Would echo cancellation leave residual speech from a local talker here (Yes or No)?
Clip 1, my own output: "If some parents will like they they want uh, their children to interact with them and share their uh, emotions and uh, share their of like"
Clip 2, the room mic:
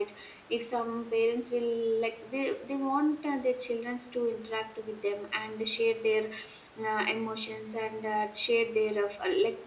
No